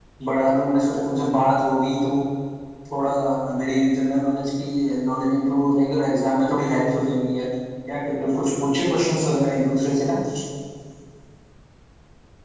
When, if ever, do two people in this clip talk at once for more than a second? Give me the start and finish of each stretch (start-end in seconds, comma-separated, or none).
none